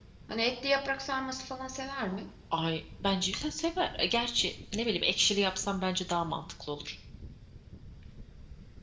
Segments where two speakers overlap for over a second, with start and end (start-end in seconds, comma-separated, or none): none